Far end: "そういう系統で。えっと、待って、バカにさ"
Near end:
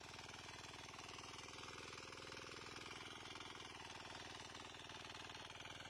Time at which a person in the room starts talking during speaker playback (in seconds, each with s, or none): none